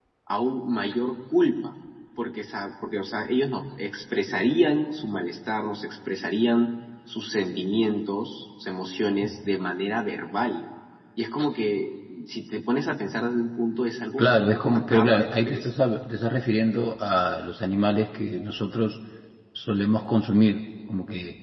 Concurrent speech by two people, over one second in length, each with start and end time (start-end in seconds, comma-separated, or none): 14.2-15.7